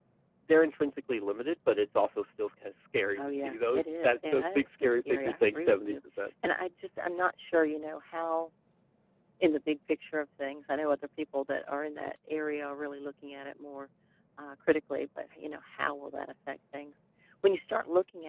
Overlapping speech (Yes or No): Yes